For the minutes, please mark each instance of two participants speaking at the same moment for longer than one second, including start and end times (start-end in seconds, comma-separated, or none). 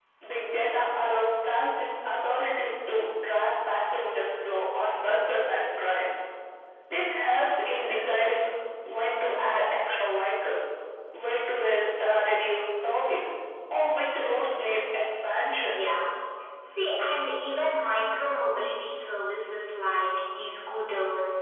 none